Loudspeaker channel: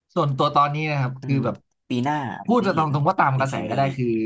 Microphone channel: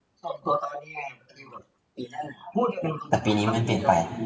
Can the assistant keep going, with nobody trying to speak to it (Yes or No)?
No